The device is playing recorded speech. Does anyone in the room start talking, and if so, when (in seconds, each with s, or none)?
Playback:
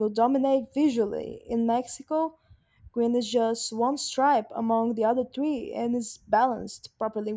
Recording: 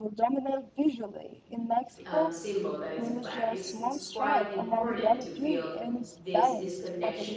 2.0 s